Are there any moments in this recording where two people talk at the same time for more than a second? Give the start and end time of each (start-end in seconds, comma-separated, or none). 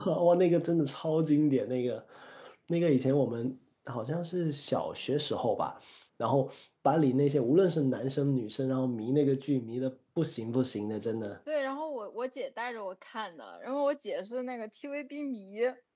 none